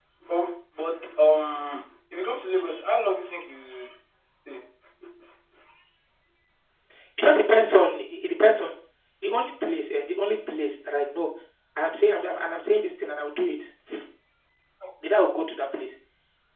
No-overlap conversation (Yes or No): Yes